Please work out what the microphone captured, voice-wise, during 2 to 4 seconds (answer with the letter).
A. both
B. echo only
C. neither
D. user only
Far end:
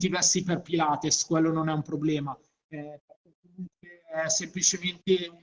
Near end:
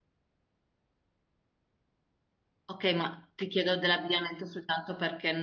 D